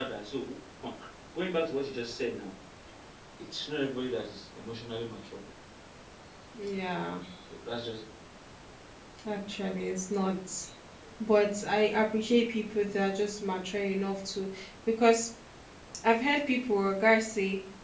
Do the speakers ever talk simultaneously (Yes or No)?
No